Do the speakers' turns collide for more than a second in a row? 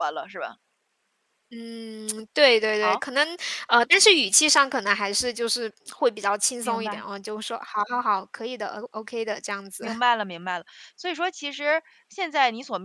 No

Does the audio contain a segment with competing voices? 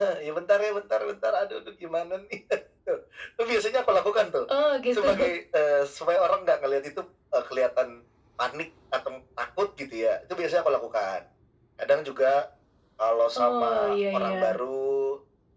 Yes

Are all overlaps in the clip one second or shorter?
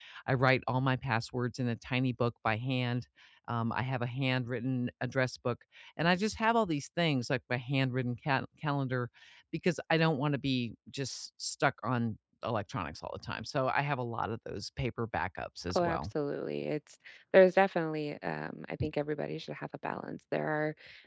Yes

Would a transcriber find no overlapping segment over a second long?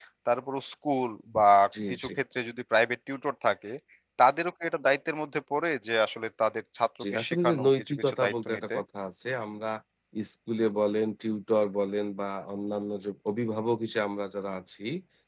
No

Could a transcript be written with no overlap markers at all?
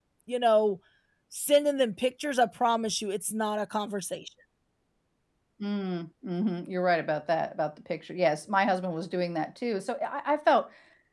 Yes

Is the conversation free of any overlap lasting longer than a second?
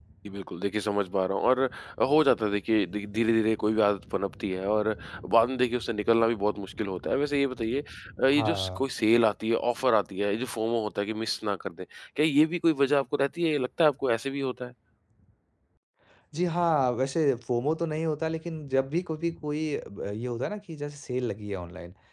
Yes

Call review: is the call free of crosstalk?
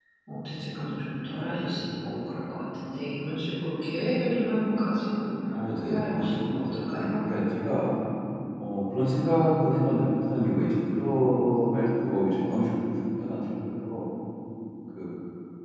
No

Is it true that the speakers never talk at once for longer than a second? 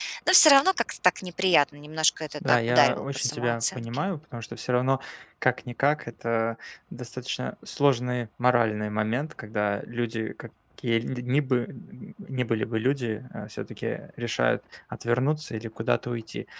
No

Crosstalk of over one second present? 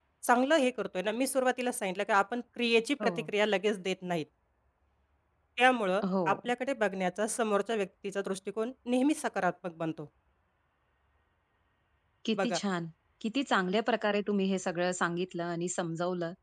No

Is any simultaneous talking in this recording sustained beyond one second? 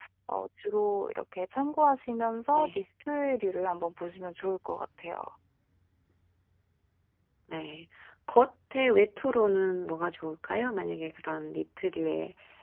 No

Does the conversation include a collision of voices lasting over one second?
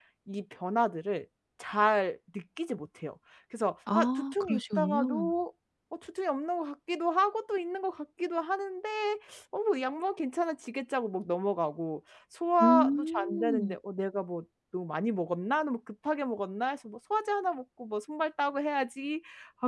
Yes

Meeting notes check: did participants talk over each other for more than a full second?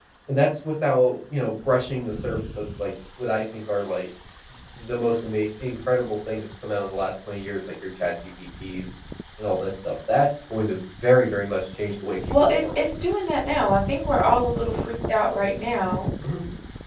No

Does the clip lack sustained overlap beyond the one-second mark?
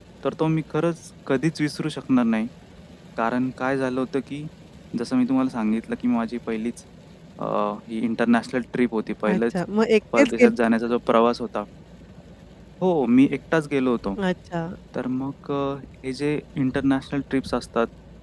Yes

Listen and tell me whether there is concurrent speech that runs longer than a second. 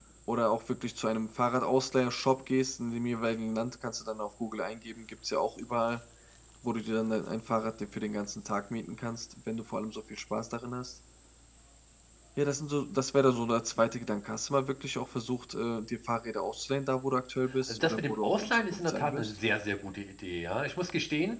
Yes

